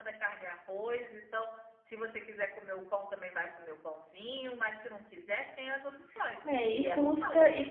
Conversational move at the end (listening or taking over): taking over